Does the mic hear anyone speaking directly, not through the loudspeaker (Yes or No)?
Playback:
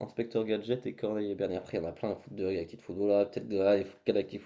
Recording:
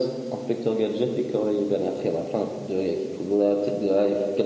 No